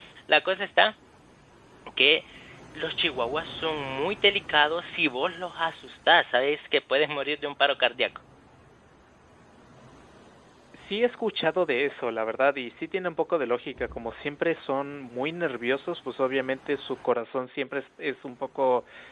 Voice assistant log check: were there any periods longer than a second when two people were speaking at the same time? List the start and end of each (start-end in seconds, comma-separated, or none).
none